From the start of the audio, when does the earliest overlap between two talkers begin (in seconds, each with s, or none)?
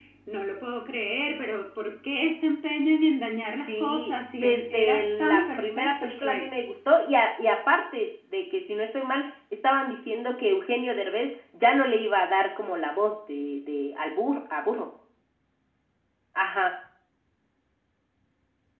3.7 s